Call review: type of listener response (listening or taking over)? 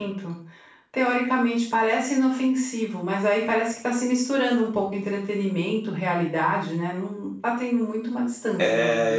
taking over